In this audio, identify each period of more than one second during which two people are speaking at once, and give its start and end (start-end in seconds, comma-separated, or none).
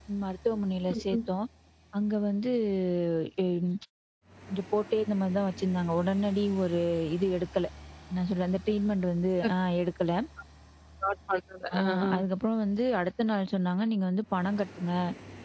none